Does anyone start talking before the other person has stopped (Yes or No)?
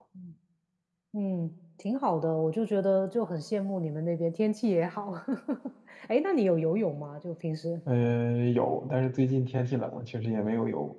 No